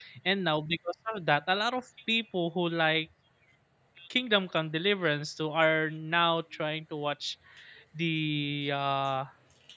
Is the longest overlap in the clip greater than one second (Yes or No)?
No